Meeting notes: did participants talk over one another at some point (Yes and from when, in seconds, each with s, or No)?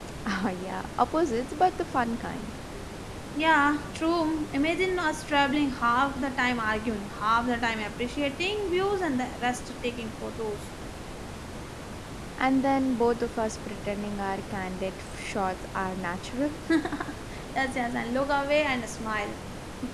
No